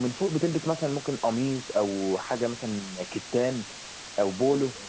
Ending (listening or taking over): listening